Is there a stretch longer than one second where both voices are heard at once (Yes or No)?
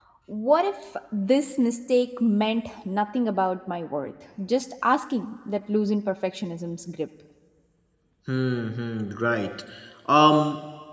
No